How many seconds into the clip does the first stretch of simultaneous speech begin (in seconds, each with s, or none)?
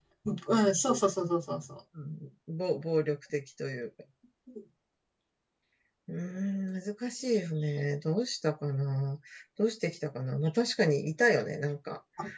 none